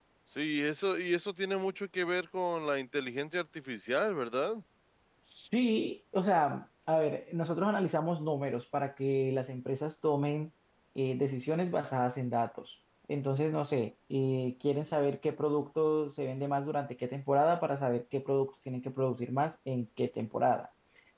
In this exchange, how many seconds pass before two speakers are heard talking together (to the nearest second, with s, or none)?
none